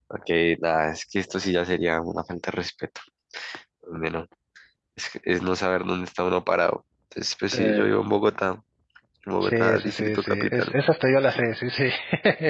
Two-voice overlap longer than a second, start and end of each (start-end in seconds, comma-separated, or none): 9.4-10.7